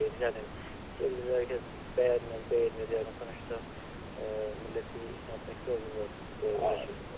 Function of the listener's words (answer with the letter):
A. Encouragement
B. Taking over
B